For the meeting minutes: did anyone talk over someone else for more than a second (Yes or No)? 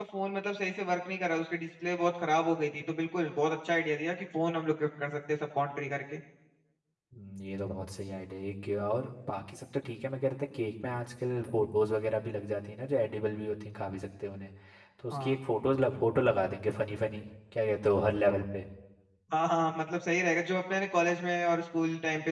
No